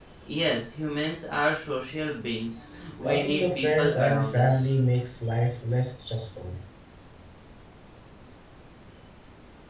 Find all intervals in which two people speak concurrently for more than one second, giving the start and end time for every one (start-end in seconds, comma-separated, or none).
3.0-4.7